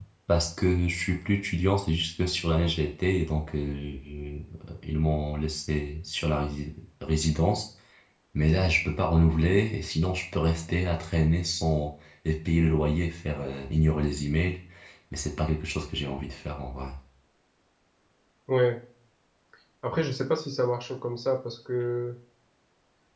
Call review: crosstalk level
none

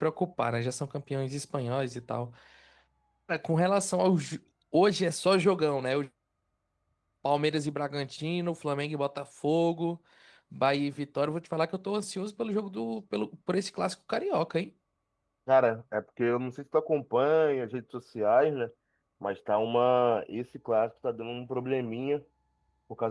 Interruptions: none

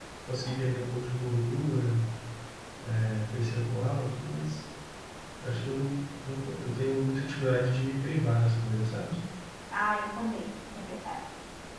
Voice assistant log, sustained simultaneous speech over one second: none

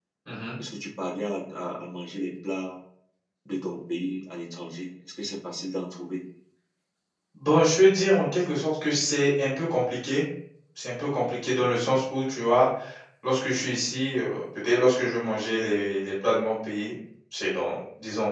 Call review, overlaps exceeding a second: none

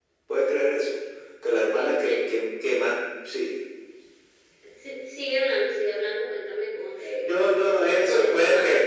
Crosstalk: present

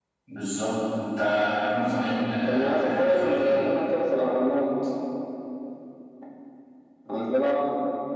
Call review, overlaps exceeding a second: present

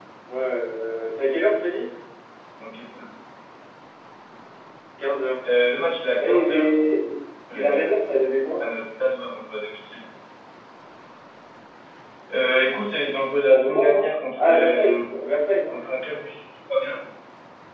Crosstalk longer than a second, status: present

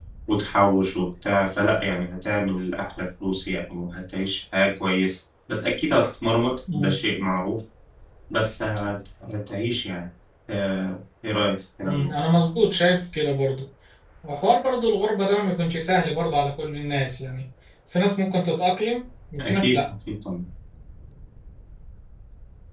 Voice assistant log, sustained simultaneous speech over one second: none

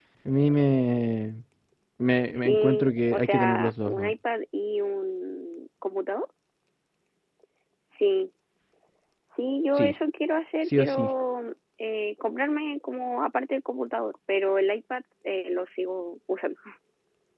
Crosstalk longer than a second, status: present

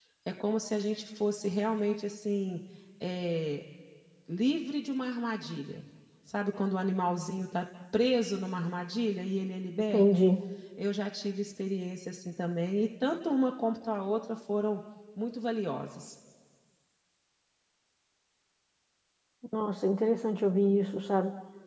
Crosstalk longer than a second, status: none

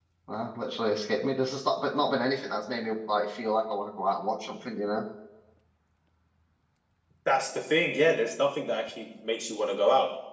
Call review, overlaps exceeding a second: none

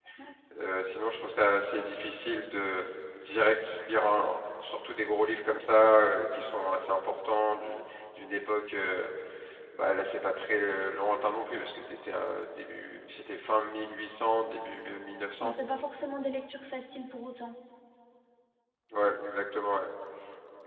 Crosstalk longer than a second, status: none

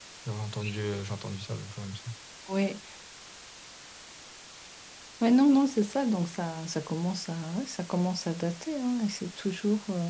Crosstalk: none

